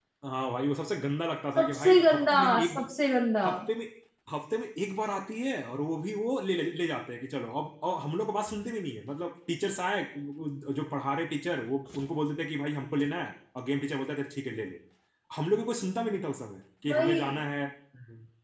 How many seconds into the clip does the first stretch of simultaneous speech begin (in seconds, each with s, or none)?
1.6 s